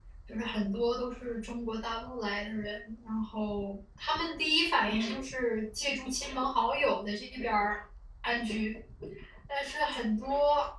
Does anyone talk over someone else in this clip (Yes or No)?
No